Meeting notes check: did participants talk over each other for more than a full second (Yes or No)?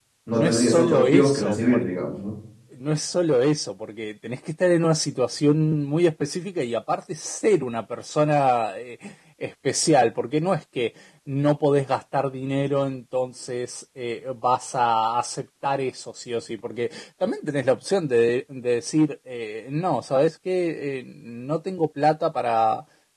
Yes